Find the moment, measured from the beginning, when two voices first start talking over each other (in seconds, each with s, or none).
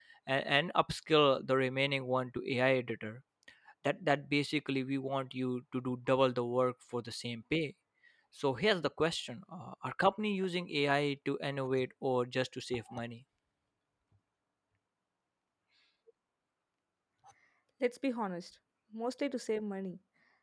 none